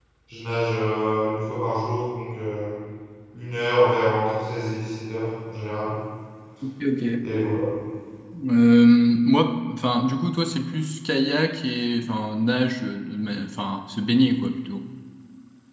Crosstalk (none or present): none